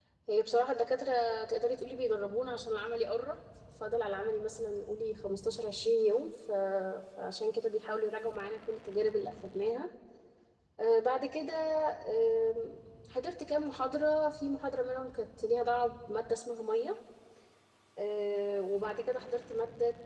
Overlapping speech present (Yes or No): No